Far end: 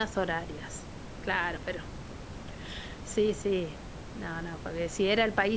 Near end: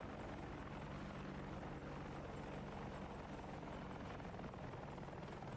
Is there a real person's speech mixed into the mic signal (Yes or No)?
No